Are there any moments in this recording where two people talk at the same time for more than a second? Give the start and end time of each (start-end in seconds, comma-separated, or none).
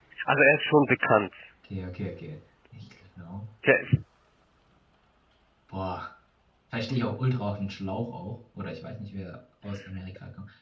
none